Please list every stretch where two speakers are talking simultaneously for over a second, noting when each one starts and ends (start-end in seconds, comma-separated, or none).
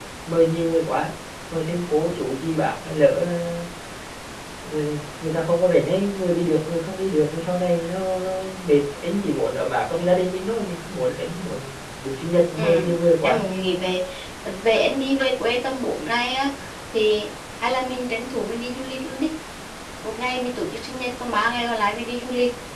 none